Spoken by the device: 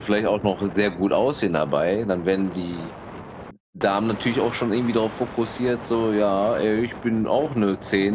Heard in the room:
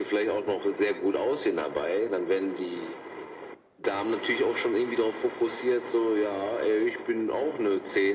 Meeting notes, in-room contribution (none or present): none